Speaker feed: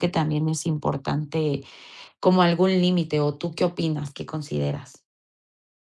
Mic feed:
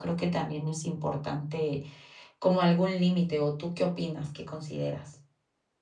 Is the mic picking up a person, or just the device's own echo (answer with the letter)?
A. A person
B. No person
B